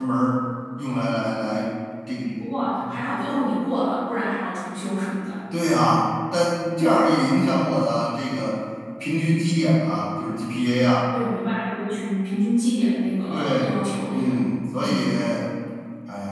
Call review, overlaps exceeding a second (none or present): none